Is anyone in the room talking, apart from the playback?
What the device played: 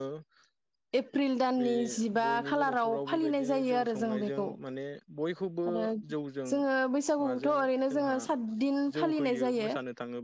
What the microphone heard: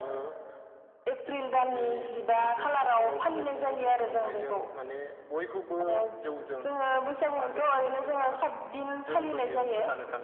No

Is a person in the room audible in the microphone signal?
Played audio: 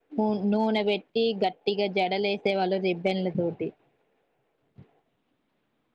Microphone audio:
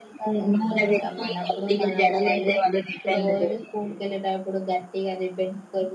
Yes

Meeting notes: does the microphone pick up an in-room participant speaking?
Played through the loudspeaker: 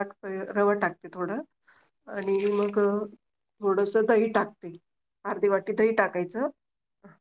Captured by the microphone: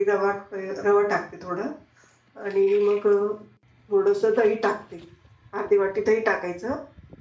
No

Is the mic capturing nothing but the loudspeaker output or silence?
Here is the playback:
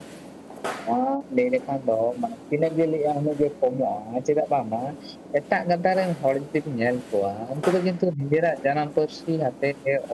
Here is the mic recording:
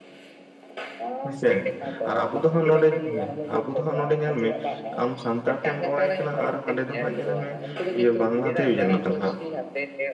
No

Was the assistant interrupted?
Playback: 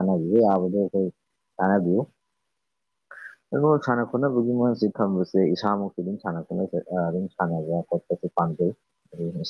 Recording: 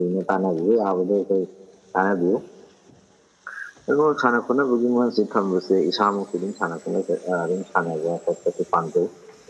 No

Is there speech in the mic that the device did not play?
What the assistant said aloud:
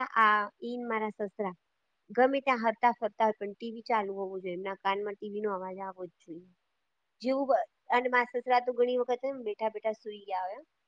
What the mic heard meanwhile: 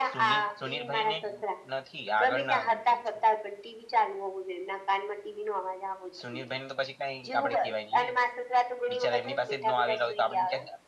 Yes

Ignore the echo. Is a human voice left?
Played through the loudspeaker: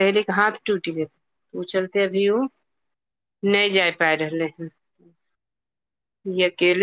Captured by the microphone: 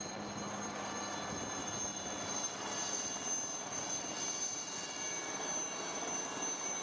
No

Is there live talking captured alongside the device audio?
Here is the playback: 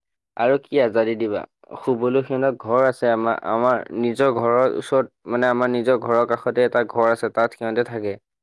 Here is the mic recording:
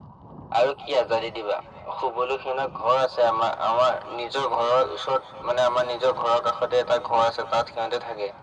No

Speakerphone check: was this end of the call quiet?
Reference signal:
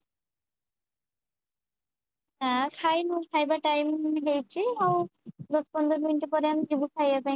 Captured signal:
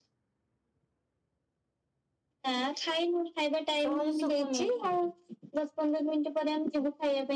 No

